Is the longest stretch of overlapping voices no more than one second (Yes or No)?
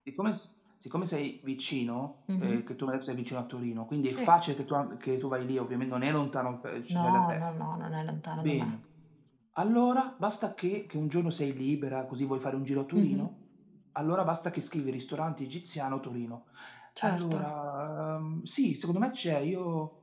Yes